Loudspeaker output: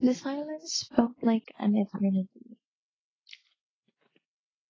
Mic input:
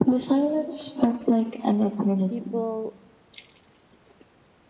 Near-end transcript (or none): people